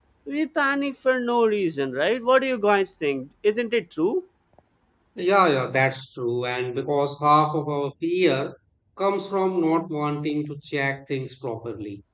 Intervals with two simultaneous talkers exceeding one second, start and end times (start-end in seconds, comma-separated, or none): none